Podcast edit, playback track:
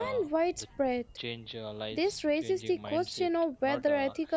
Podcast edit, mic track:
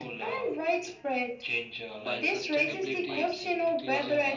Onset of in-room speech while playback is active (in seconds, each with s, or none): 2.0 s